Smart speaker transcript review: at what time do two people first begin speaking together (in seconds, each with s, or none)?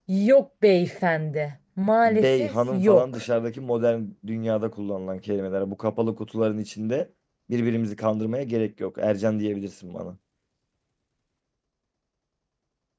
2.0 s